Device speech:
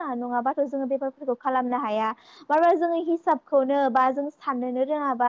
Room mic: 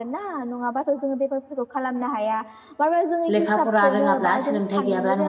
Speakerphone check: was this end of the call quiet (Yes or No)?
No